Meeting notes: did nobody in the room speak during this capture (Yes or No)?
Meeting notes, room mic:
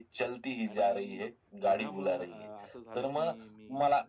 No